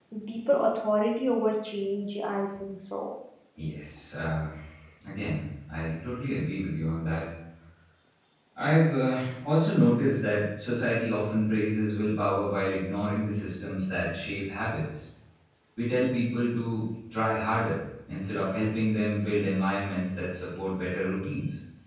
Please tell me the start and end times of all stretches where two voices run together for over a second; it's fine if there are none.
none

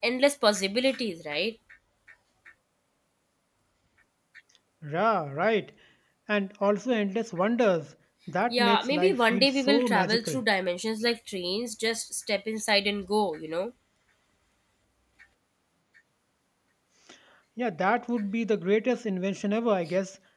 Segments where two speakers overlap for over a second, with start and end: 8.5-10.4

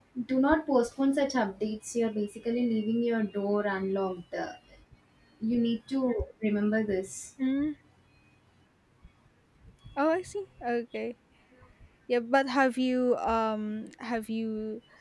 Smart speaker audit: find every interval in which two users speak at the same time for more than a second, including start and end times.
none

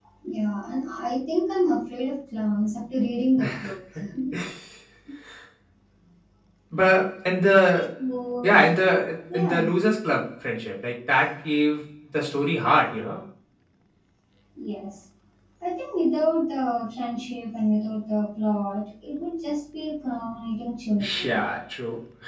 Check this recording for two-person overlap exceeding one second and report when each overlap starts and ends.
none

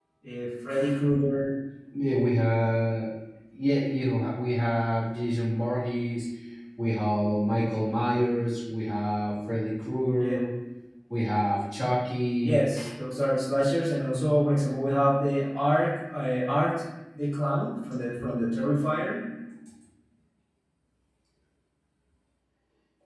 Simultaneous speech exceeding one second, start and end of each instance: none

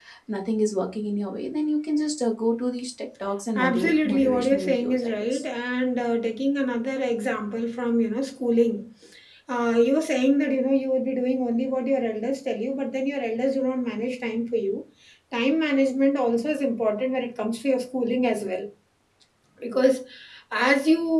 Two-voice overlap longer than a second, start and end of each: 3.5-5.4

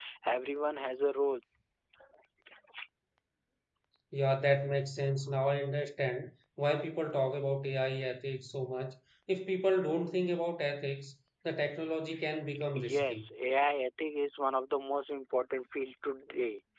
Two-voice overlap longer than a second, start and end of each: none

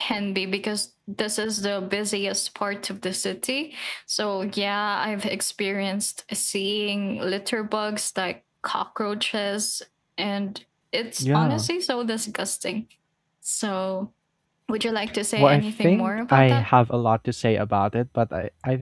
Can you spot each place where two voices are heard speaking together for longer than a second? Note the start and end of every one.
15.4-16.7

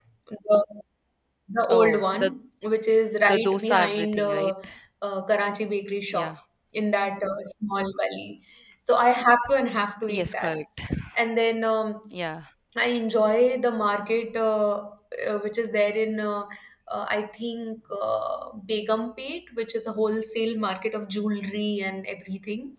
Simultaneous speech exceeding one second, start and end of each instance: 3.3-4.5

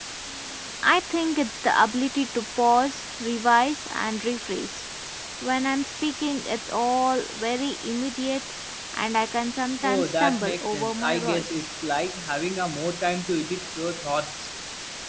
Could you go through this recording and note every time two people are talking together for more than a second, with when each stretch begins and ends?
9.8-11.7

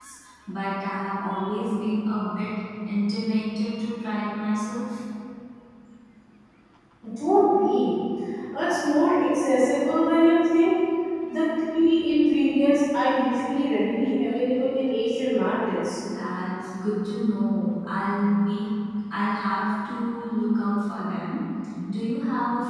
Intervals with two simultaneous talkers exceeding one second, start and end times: none

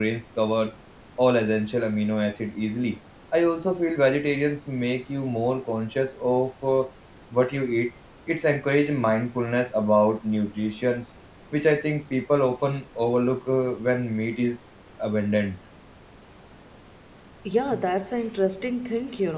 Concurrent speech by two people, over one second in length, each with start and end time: none

